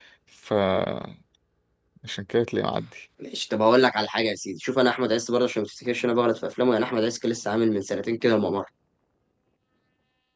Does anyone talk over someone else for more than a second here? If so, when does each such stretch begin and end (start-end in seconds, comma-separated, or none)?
none